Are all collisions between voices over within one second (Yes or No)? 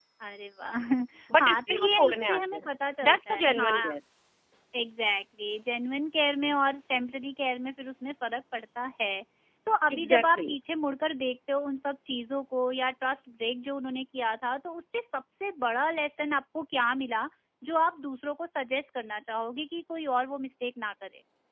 No